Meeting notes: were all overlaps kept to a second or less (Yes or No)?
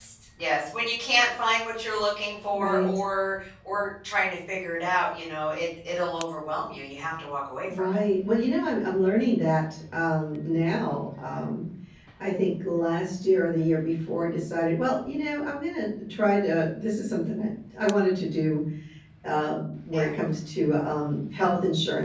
Yes